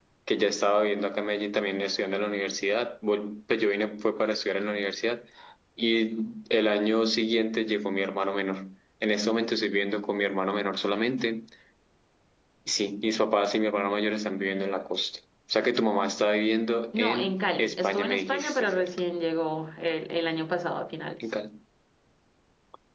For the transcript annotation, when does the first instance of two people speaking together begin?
16.9 s

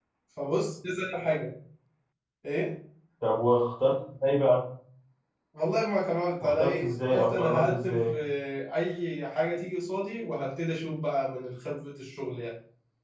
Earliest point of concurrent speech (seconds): 6.4 s

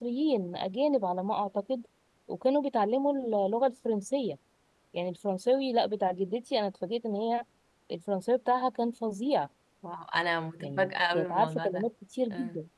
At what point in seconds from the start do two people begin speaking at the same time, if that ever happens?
10.6 s

